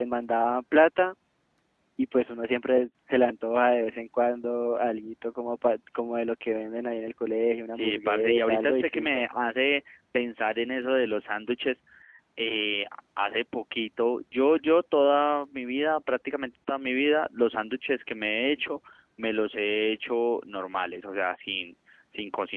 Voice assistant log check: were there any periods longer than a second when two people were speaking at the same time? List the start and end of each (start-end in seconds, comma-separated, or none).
7.7-9.2